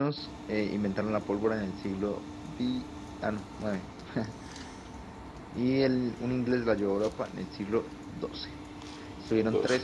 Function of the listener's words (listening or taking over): listening